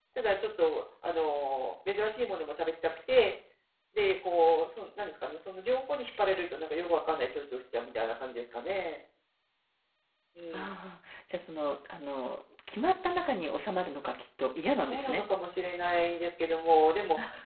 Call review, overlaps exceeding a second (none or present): none